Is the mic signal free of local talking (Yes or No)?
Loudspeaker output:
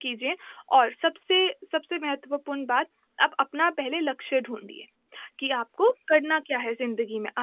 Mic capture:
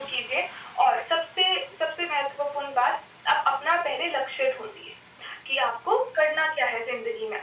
Yes